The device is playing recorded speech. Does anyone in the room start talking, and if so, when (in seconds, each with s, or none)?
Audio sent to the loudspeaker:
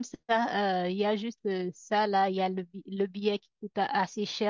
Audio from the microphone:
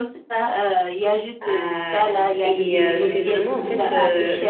1.4 s